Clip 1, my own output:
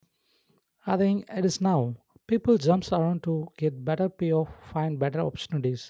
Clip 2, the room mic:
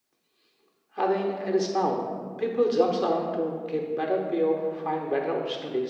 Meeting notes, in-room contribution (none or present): none